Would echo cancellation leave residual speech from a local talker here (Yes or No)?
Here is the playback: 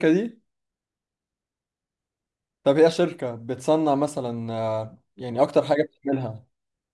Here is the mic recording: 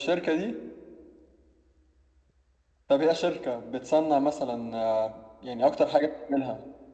No